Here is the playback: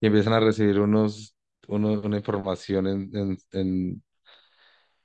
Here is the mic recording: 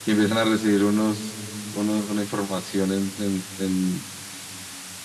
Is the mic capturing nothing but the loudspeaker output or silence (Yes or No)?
Yes